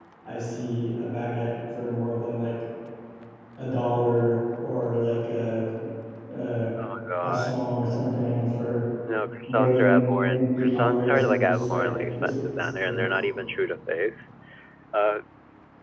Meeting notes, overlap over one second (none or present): present